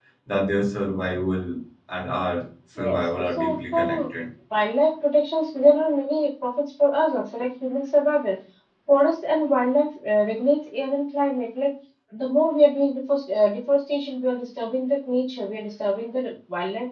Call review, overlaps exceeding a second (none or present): present